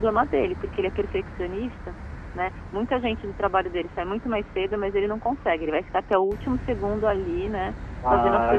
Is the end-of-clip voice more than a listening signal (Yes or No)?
Yes